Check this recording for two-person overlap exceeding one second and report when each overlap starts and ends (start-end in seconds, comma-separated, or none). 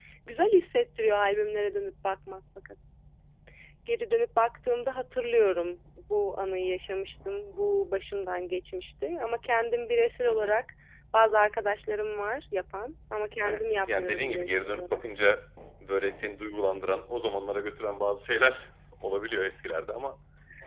13.4-15.0